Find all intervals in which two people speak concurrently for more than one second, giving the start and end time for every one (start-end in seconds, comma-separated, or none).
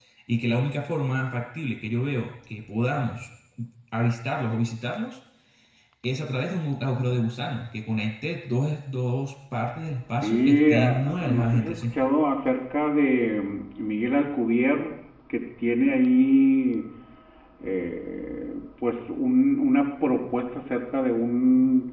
10.2-11.9